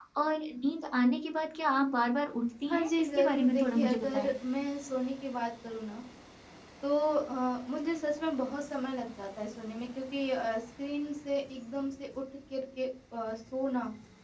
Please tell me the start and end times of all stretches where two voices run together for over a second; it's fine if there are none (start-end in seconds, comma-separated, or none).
2.7-4.3